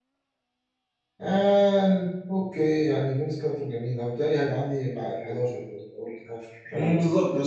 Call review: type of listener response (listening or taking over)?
taking over